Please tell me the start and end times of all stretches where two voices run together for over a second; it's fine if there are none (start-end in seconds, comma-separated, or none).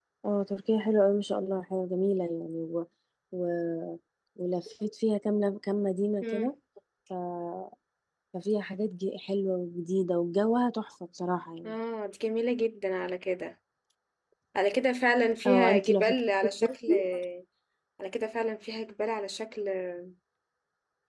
15.4-16.9